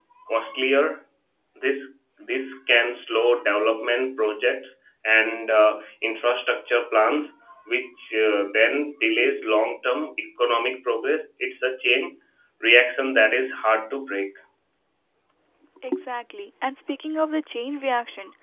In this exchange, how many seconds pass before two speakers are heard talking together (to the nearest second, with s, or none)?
none